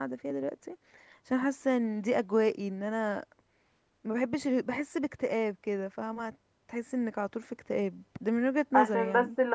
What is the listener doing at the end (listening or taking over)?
taking over